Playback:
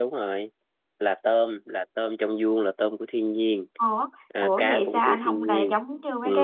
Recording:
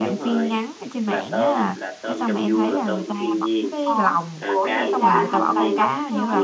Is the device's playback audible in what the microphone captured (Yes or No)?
Yes